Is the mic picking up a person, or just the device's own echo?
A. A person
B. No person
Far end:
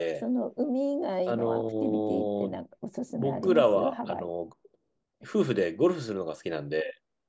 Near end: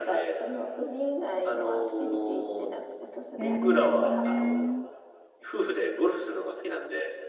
A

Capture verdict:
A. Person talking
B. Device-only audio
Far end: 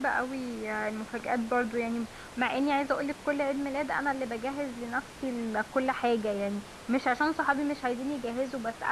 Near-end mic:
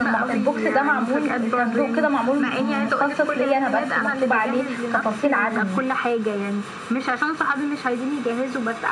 A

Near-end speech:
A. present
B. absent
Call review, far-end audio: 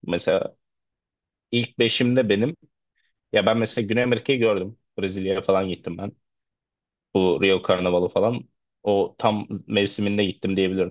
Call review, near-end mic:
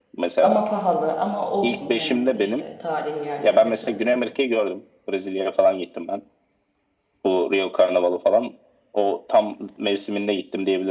A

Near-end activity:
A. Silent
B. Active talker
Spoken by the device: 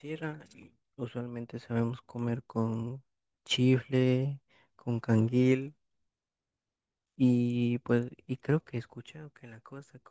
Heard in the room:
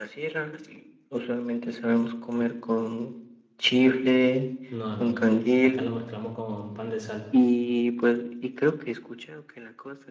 B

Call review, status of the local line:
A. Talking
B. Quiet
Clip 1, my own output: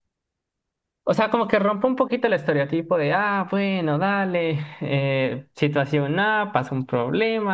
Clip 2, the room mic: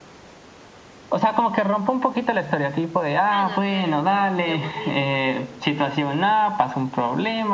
A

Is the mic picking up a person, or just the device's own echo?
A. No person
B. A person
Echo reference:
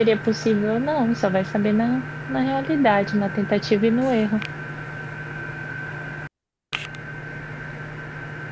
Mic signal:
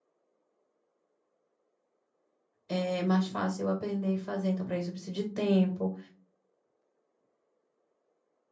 B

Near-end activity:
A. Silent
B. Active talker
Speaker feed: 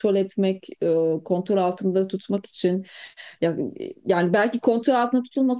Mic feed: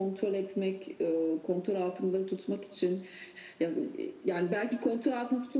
A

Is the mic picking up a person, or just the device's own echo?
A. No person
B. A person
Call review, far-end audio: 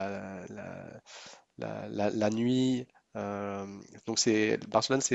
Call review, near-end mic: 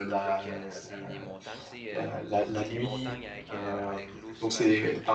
B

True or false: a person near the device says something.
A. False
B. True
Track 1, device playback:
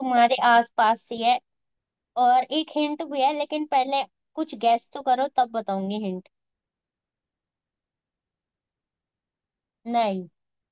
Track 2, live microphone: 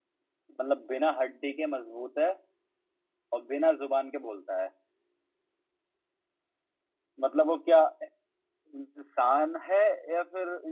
B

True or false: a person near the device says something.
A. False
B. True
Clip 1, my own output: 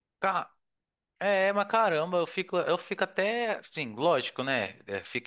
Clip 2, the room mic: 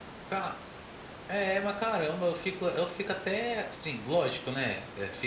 A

